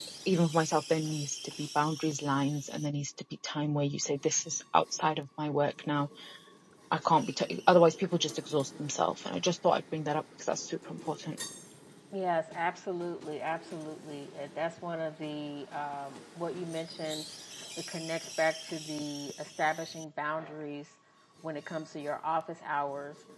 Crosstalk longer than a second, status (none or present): none